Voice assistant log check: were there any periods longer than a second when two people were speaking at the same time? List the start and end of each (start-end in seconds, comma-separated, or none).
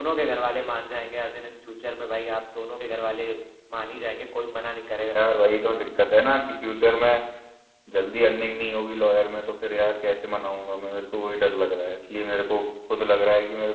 none